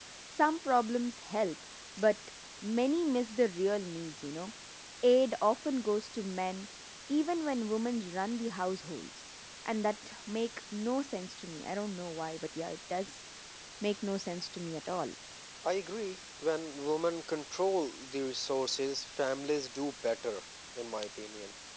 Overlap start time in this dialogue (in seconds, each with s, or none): none